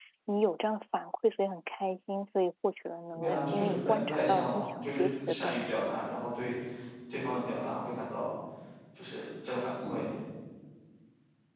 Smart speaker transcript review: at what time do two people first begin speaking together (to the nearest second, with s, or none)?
3 s